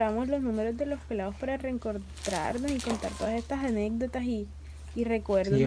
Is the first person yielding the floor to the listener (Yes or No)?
Yes